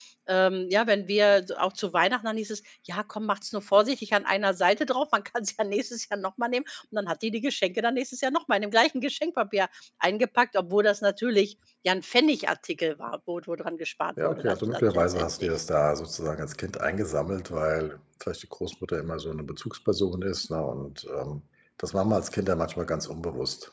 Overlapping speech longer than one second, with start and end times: 14.2-15.5

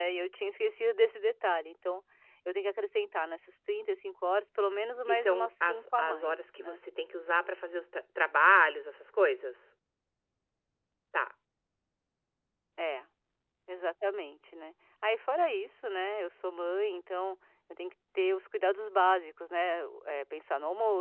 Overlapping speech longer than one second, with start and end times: 5.0-6.8

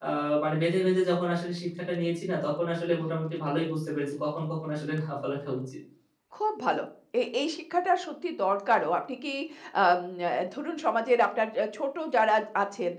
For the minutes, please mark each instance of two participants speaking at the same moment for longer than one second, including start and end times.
none

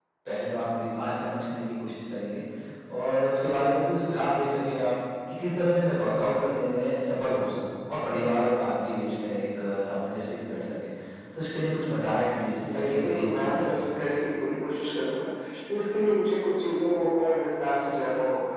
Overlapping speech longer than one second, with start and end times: 12.6-14.1

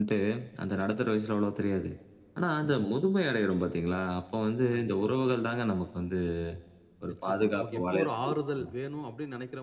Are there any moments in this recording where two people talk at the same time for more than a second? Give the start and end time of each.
7.1-8.7

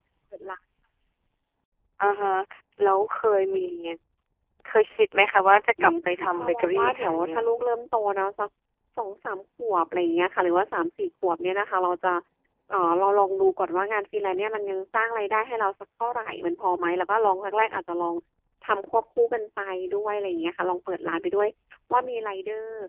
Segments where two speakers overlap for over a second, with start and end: 5.8-7.4

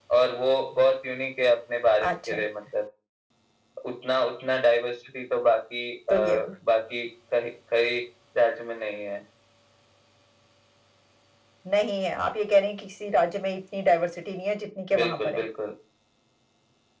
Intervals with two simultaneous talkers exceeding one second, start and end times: none

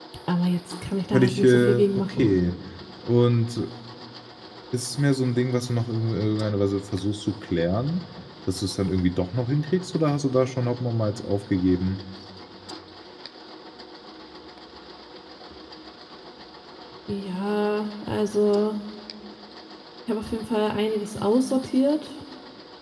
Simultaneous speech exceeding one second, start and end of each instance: 1.1-2.4

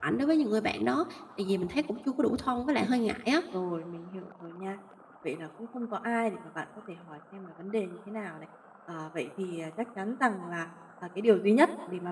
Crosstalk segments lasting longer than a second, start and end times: none

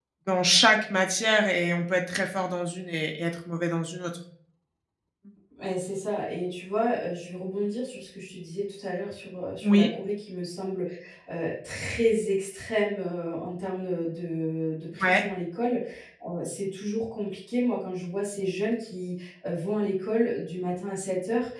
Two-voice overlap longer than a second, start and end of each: none

